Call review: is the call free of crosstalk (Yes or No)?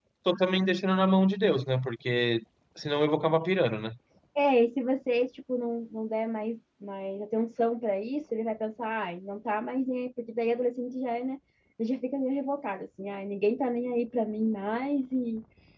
Yes